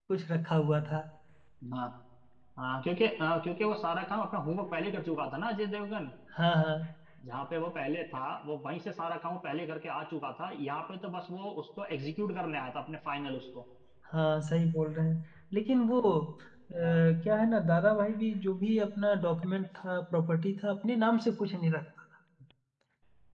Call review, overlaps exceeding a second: none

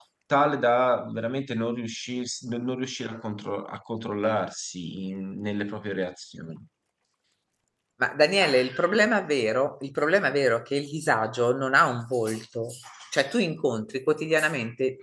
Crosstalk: none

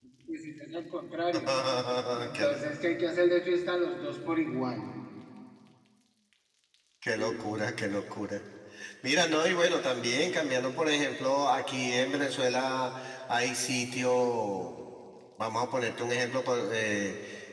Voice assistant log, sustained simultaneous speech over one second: none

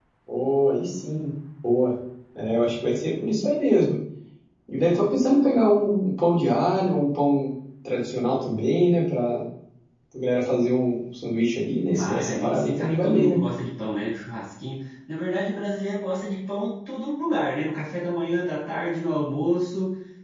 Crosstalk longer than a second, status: present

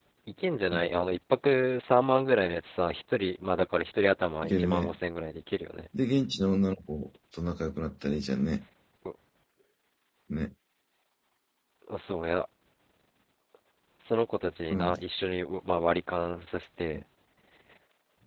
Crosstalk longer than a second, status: none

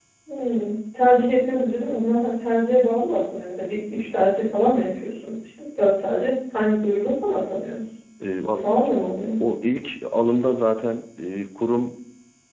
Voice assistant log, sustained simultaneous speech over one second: none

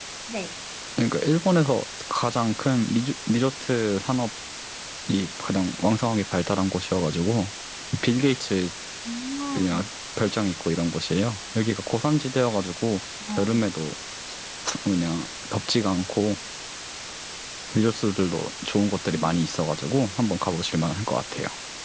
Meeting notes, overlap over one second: none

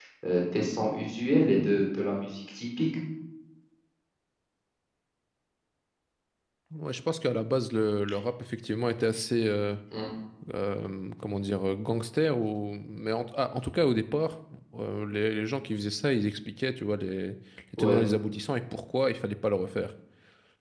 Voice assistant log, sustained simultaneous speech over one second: none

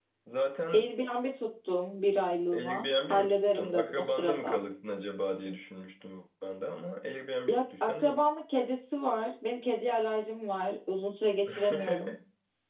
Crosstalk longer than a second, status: present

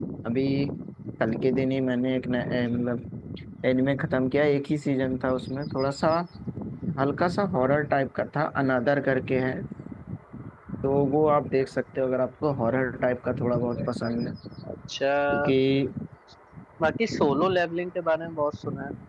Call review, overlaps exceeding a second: none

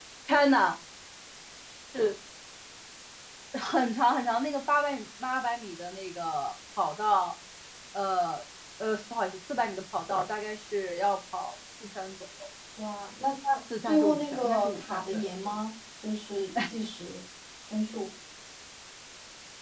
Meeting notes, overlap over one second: present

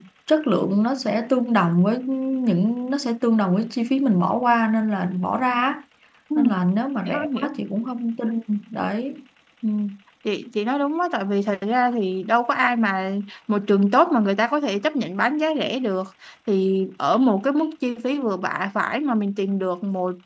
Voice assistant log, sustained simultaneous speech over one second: none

